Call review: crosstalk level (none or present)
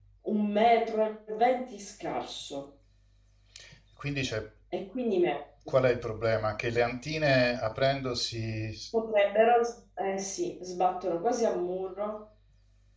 none